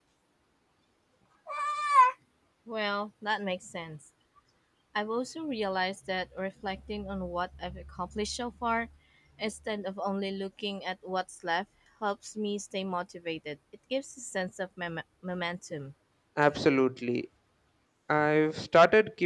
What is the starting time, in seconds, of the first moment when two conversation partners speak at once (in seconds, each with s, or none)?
none